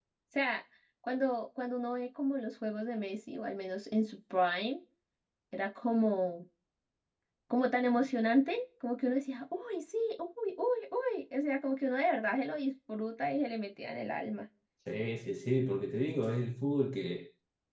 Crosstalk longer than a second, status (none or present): none